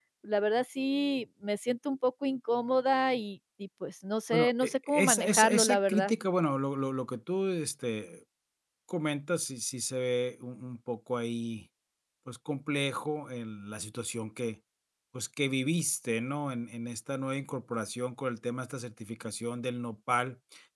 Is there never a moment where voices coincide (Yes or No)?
No